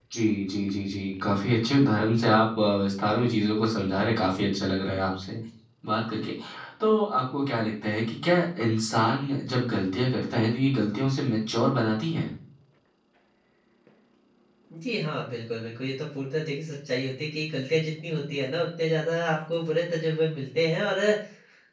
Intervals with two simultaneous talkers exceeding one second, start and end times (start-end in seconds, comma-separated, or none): none